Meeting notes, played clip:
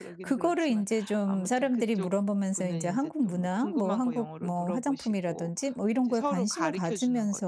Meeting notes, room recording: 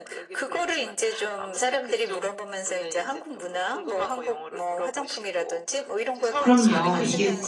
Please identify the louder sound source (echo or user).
user